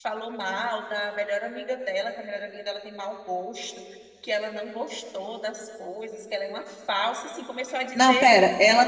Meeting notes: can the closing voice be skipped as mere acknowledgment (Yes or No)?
No